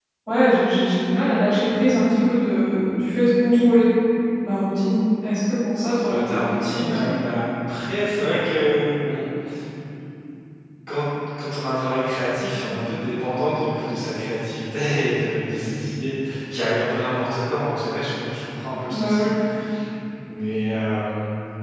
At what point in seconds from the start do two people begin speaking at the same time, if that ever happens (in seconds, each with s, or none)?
5.9 s